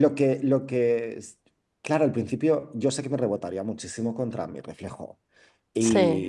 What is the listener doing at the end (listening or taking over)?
listening